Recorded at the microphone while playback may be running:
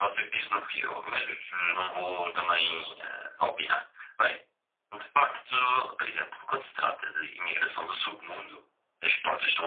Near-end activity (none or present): none